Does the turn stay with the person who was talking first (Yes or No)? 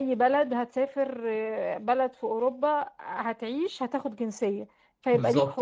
No